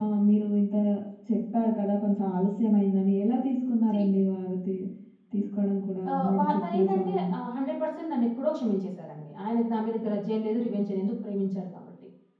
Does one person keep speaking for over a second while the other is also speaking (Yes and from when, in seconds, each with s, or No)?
Yes, from 6.1 s